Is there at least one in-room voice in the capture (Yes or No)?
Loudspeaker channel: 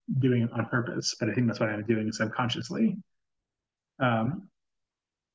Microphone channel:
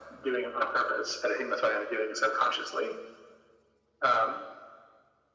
No